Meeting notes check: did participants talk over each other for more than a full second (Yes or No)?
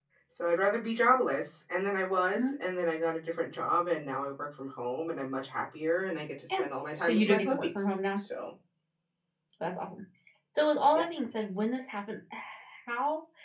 Yes